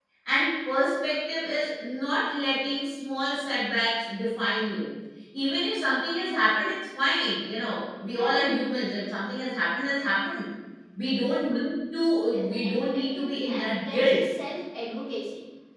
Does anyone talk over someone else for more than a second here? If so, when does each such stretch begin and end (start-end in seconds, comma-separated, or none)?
12.3-14.2